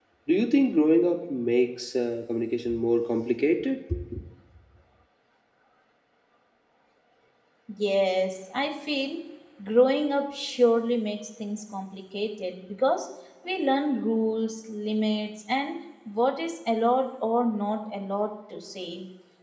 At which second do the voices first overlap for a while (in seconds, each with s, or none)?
none